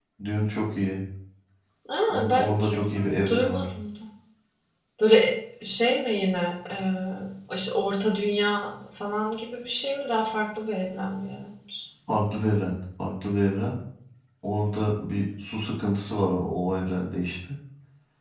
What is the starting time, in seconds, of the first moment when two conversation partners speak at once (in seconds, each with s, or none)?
2.1 s